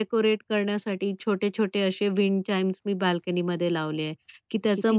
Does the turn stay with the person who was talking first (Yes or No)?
Yes